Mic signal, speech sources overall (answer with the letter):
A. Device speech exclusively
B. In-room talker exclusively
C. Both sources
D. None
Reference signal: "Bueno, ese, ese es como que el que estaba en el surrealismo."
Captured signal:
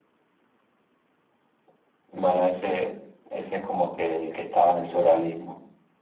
A